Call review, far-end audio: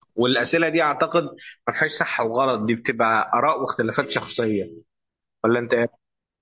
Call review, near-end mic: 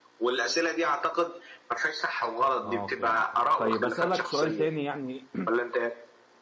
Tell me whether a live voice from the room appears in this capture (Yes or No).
Yes